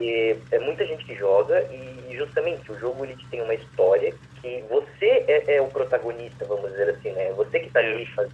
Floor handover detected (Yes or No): No